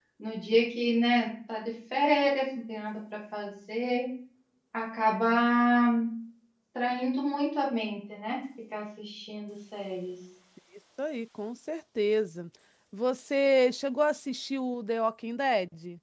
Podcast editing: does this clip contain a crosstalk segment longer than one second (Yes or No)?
No